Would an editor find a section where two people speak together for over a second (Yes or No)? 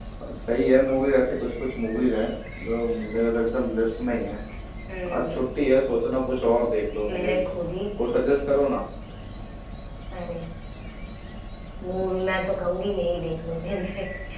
No